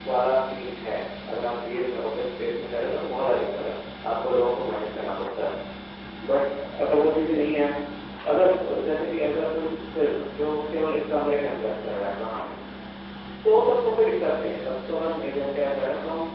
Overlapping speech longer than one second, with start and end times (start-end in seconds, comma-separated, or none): none